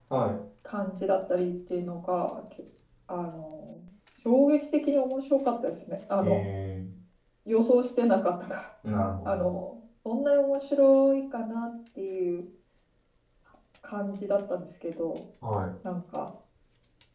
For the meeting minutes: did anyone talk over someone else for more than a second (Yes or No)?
No